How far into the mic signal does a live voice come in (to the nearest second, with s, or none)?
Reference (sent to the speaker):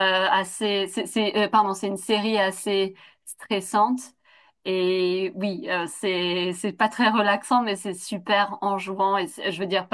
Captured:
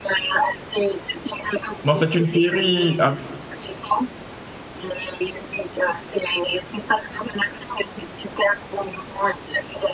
2 s